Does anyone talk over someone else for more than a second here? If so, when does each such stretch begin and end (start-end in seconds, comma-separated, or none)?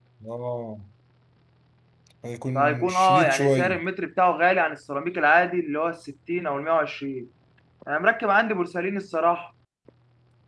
2.5-3.8